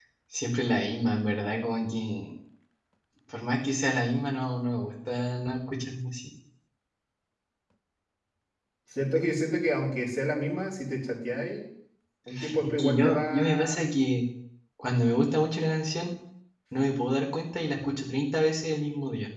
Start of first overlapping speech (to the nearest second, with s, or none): 13 s